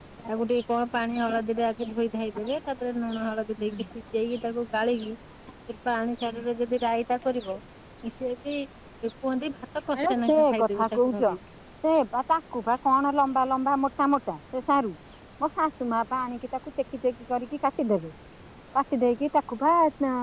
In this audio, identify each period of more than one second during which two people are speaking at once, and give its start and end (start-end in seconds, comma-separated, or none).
10.0-11.2